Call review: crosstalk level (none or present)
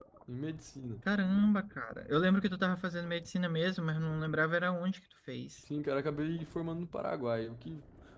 none